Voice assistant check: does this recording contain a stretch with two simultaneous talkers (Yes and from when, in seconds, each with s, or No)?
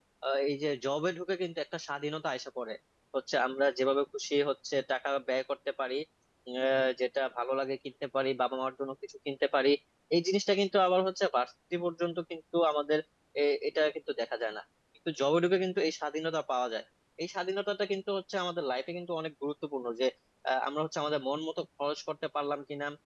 No